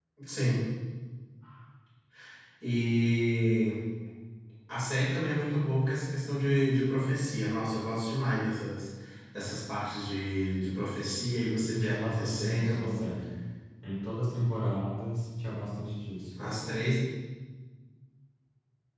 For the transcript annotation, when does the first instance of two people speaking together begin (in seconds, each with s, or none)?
11.6 s